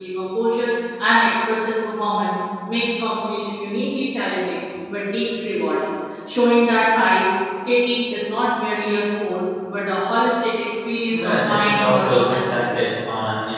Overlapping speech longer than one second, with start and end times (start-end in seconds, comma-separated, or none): 11.1-12.8